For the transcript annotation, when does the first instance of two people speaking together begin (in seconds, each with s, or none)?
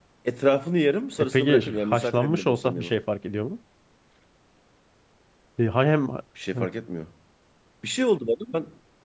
1.2 s